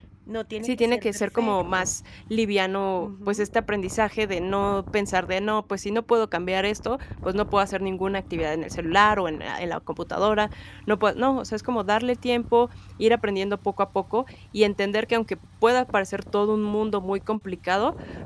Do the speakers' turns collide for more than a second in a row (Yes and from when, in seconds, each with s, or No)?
Yes, from 0.6 s